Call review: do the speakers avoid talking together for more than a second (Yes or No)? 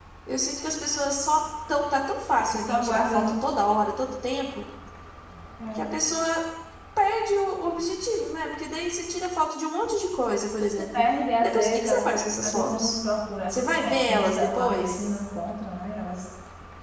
No